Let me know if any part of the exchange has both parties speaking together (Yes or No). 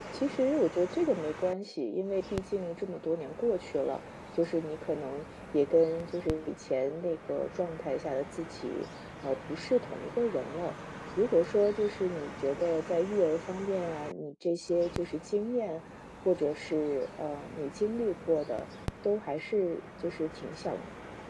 No